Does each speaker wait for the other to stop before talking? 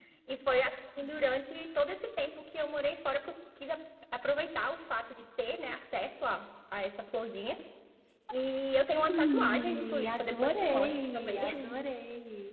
No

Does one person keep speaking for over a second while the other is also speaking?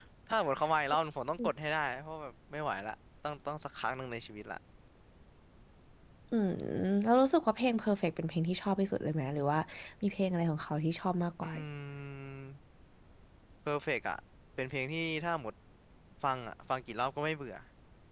No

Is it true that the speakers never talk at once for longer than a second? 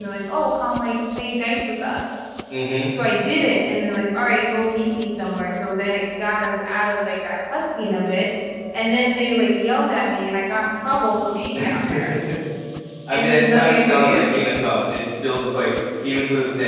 No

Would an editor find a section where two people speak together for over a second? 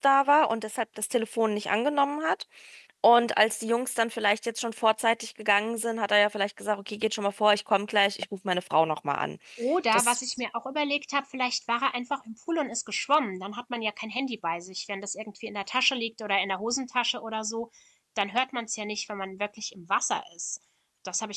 No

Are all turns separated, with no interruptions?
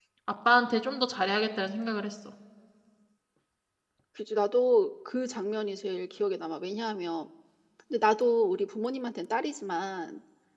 Yes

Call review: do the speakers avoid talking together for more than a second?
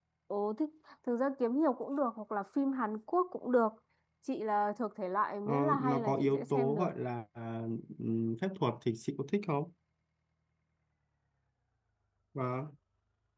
No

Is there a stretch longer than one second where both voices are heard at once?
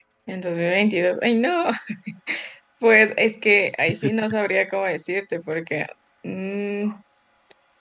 No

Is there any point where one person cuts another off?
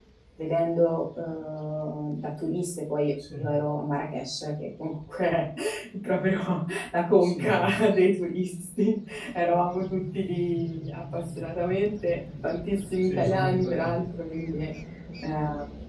Yes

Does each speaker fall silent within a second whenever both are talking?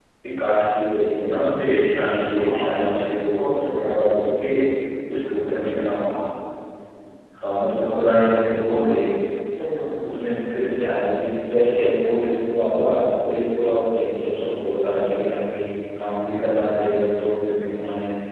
No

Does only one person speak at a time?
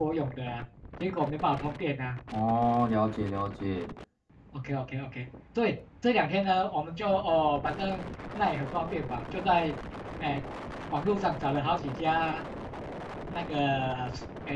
Yes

